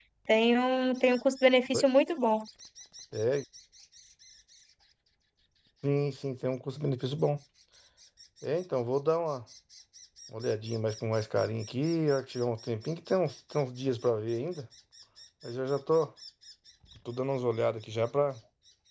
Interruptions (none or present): none